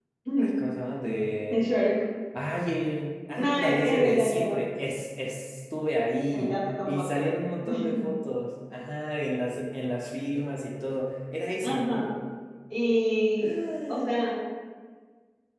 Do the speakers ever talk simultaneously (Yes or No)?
Yes